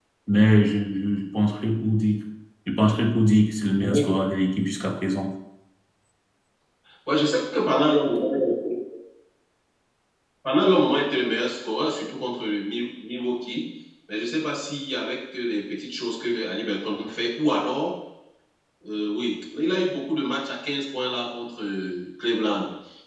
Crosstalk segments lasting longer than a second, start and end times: none

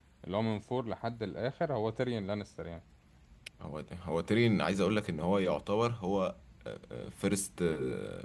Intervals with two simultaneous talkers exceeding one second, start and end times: none

